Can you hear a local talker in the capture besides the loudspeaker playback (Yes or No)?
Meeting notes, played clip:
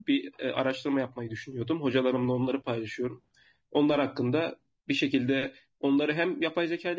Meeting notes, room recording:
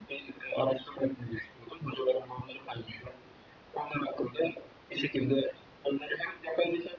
No